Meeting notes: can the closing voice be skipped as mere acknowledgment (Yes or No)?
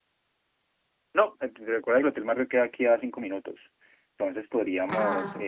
Yes